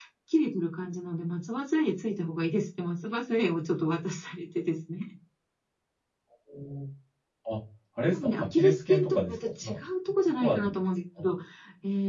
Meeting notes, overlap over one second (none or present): present